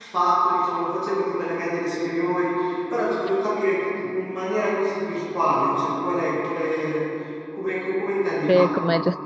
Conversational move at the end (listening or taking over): taking over